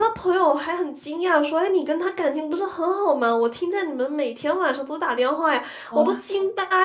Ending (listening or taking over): listening